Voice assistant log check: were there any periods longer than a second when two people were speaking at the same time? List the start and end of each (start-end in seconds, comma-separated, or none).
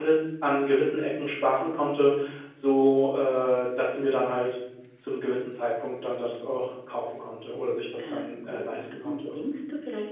8.0-9.3